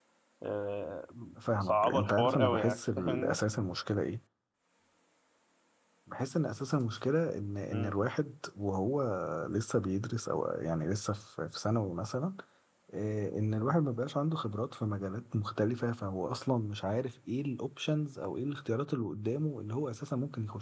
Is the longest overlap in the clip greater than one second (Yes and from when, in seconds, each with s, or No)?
Yes, from 1.5 s